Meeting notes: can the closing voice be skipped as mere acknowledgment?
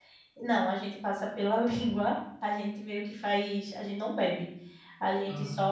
Yes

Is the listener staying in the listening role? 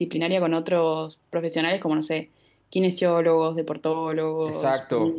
No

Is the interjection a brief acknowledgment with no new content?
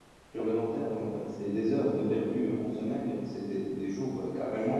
Yes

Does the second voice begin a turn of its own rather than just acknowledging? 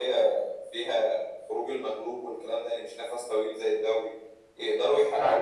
No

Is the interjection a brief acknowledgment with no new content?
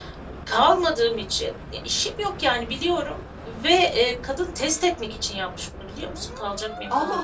No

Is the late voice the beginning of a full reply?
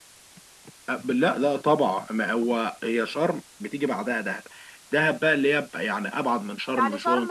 Yes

